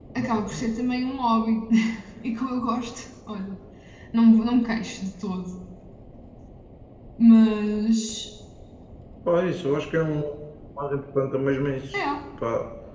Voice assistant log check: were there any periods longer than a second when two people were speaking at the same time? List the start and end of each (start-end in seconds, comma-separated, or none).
none